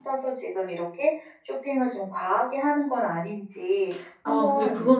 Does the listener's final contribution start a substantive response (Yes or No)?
Yes